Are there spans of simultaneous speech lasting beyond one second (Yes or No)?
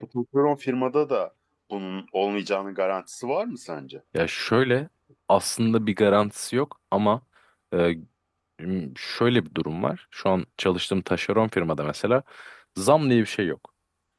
No